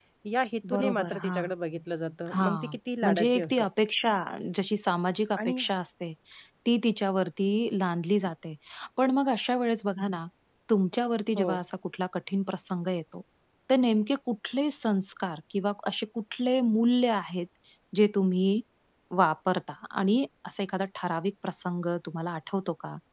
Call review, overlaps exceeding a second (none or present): present